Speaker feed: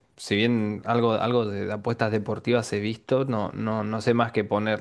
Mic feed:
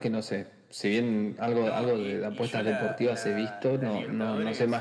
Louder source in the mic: echo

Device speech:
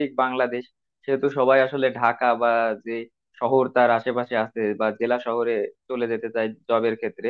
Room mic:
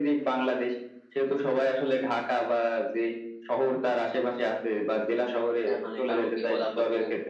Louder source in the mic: echo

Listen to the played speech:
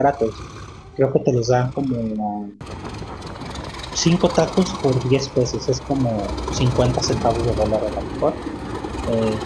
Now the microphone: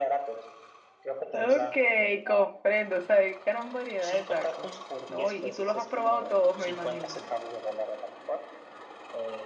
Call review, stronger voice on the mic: user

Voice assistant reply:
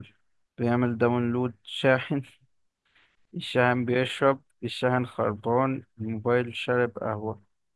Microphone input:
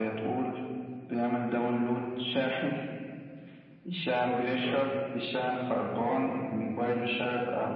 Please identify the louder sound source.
echo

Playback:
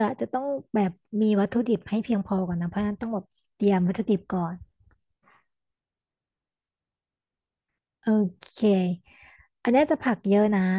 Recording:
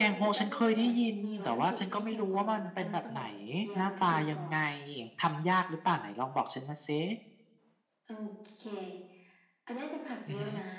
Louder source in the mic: user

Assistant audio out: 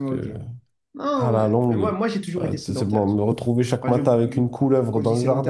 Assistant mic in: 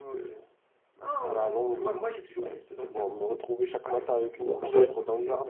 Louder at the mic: user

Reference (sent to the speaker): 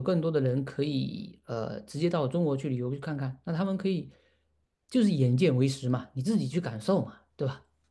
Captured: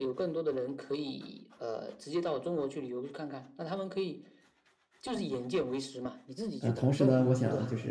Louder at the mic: user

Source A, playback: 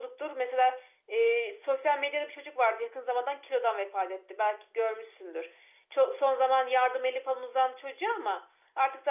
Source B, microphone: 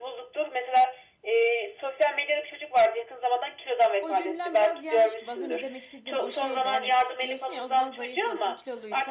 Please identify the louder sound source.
echo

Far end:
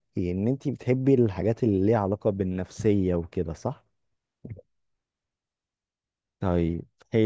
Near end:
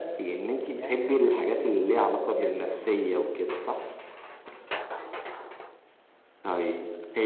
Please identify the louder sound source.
echo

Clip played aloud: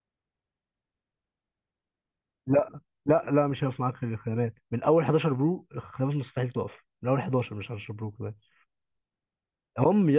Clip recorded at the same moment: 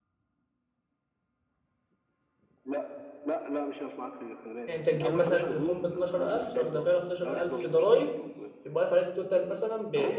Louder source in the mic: user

